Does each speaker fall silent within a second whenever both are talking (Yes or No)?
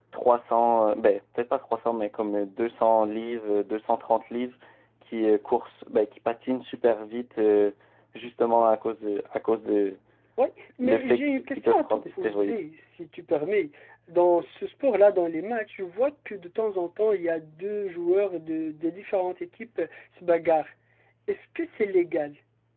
No